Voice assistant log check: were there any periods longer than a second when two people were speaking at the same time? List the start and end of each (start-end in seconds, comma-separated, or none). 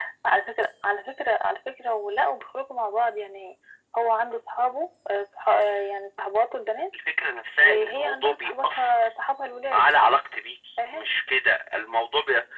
7.6-9.1